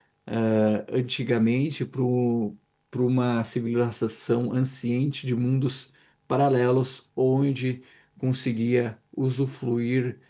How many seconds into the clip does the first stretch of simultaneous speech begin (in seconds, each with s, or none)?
none